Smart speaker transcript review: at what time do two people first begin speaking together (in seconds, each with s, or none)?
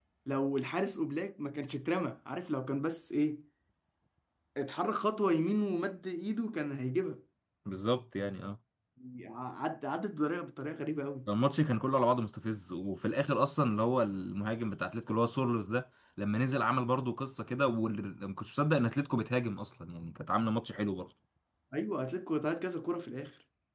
none